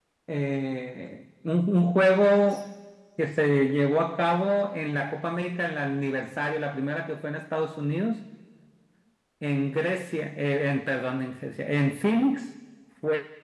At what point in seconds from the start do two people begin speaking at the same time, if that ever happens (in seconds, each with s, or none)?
none